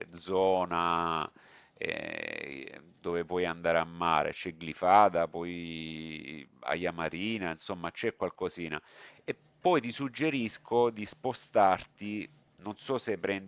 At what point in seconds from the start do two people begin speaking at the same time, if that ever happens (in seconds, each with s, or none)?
none